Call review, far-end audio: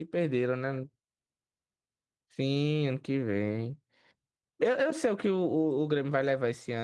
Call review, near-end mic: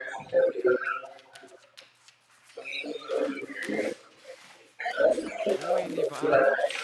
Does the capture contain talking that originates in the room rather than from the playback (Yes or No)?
Yes